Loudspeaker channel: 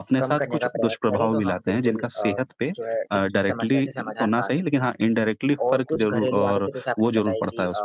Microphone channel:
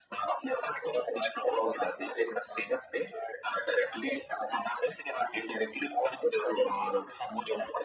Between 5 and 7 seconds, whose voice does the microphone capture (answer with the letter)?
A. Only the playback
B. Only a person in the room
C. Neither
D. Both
A